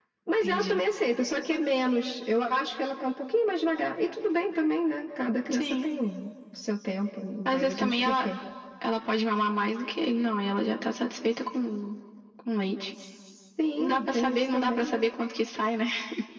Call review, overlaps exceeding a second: present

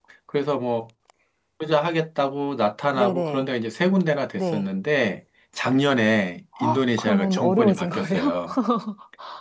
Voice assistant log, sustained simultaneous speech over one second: present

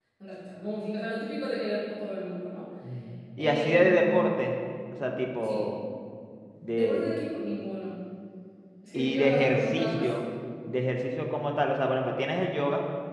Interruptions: present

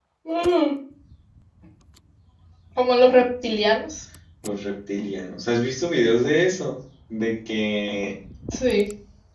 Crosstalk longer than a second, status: none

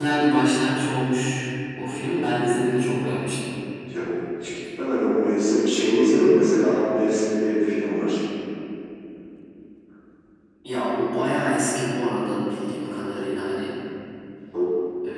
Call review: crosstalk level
none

